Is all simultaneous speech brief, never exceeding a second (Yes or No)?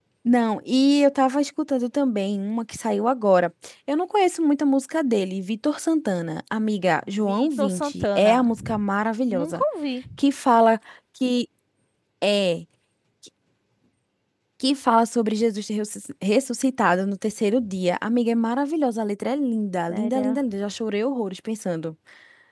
No